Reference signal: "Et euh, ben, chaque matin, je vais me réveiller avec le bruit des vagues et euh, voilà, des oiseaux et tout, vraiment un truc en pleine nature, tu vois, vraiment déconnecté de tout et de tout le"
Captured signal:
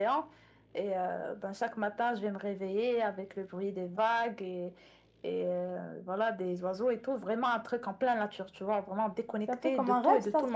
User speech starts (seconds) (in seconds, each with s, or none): 9.4 s